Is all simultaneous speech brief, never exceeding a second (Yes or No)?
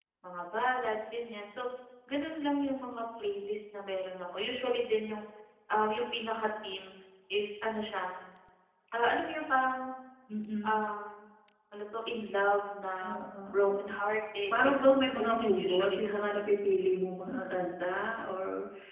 No